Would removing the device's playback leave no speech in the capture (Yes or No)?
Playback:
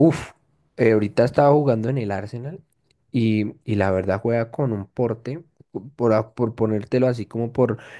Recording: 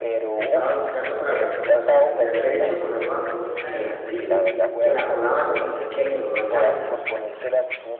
No